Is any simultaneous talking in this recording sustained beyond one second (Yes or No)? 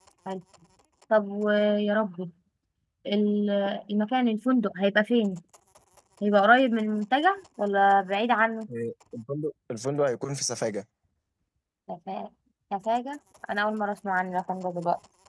No